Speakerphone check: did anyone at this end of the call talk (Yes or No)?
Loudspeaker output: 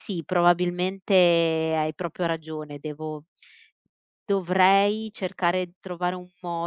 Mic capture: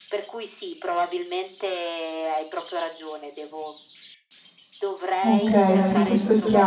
Yes